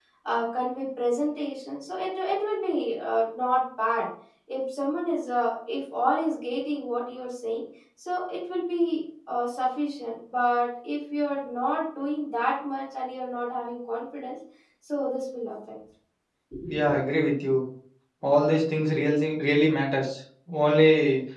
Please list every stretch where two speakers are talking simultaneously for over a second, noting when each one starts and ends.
none

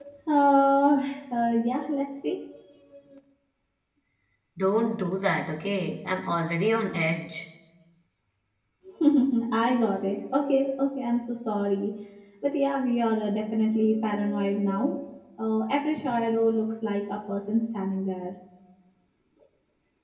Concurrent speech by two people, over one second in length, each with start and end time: none

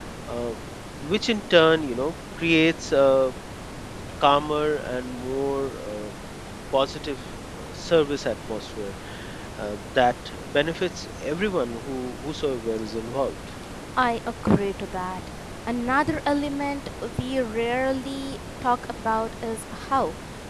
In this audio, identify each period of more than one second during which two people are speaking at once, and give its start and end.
none

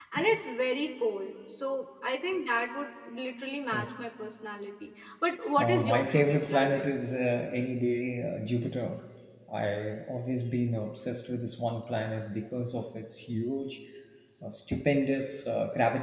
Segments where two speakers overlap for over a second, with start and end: 5.6-6.9

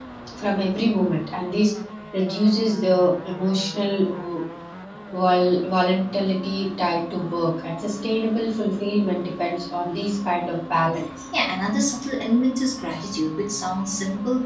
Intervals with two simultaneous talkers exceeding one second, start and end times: none

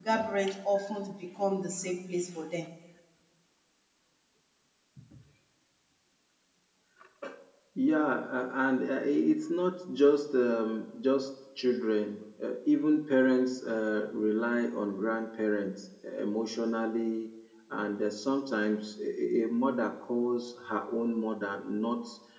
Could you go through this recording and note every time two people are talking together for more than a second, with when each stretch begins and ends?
none

